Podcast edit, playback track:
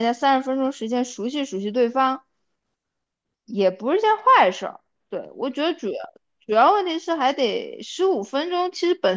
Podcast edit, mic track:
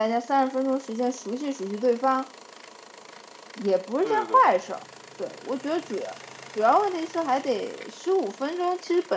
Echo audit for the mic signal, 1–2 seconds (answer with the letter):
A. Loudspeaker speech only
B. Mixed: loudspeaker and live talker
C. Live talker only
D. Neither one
A